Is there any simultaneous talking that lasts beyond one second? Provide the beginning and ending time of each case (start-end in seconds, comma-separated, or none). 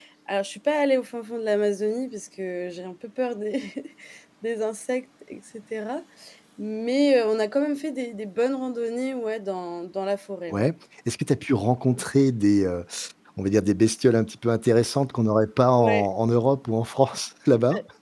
none